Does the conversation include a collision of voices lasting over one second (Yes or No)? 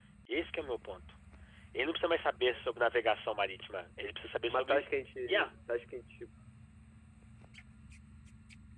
No